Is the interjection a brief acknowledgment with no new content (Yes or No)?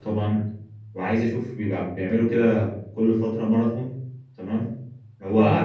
Yes